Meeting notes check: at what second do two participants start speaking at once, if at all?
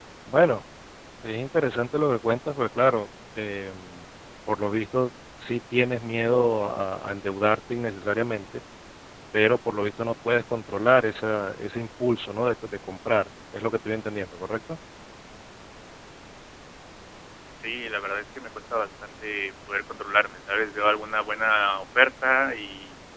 none

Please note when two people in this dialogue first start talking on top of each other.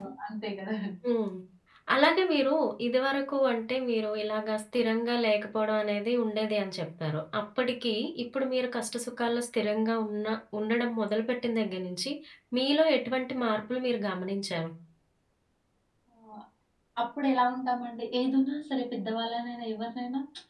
none

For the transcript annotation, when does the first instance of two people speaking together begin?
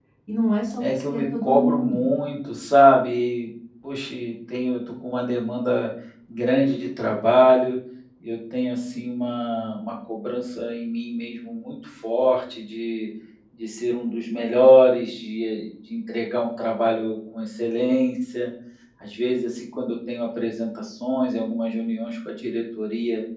1 s

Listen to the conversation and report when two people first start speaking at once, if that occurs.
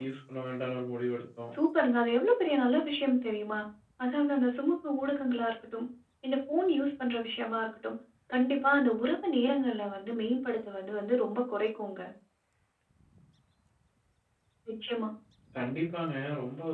none

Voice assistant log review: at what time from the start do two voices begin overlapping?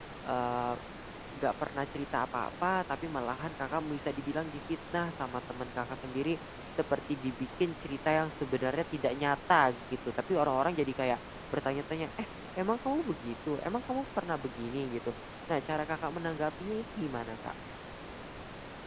none

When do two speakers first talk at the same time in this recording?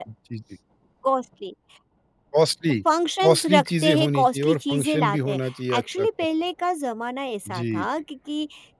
3 s

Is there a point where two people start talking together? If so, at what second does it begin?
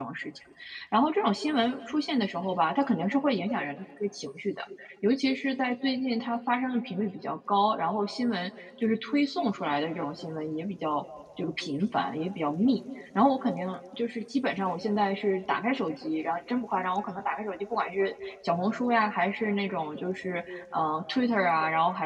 none

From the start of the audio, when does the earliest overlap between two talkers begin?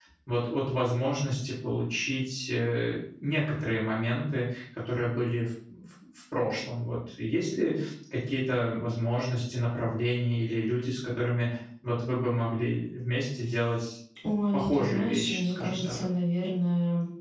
15 s

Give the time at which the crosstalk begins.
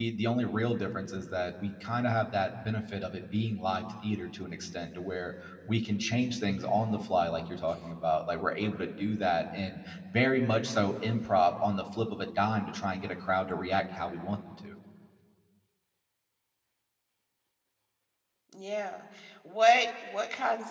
none

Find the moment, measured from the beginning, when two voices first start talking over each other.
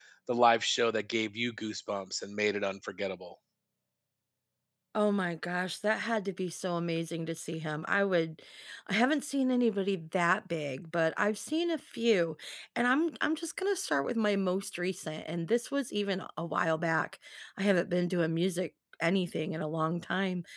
none

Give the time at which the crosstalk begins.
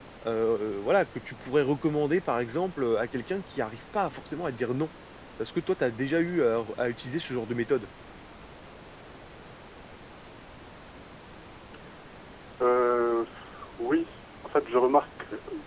none

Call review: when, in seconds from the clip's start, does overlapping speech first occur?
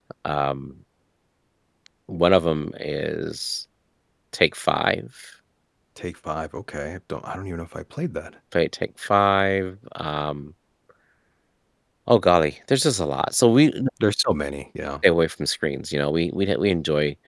none

